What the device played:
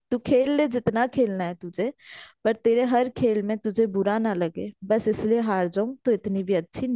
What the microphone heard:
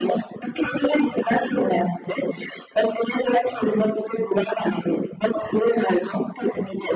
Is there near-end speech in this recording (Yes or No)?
No